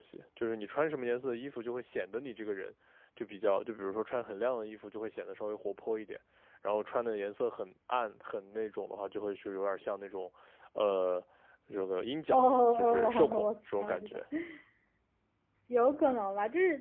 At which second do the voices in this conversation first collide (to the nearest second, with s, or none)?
12 s